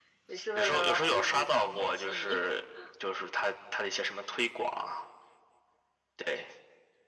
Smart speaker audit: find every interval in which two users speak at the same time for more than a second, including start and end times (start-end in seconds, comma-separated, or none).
0.6-2.4